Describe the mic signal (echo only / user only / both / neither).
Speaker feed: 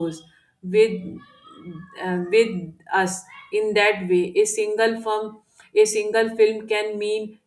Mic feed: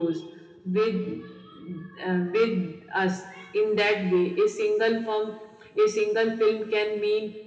echo only